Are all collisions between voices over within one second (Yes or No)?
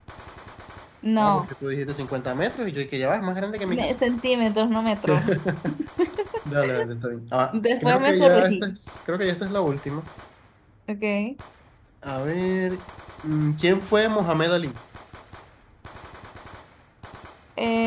No